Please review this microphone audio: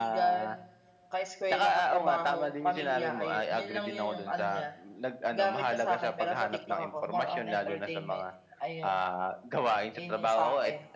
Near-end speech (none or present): present